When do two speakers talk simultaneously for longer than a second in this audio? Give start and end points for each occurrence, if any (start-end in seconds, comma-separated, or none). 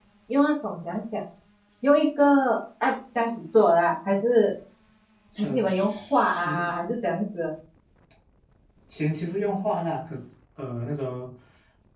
5.4-6.7